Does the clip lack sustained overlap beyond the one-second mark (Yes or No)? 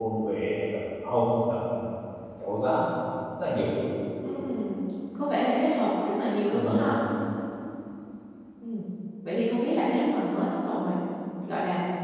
Yes